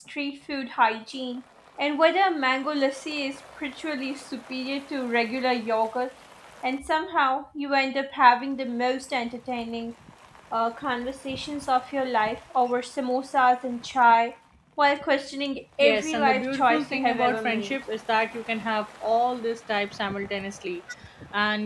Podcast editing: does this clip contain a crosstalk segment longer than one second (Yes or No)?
Yes